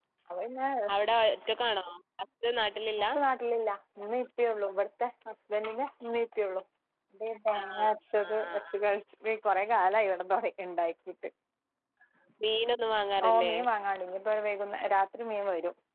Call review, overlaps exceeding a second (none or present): none